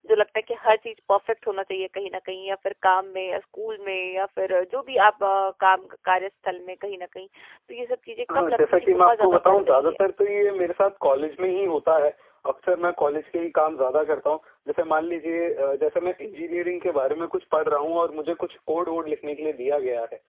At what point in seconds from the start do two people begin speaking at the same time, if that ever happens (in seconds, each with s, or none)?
8.3 s